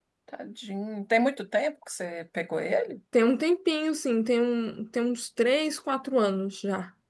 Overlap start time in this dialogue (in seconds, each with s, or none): none